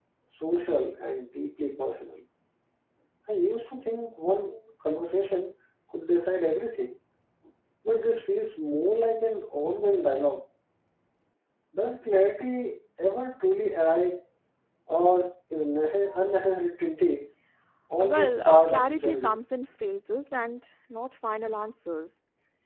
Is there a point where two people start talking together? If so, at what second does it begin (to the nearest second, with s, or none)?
18 s